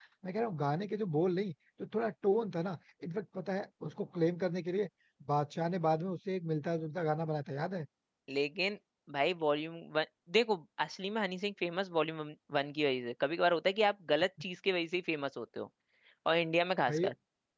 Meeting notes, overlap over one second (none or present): none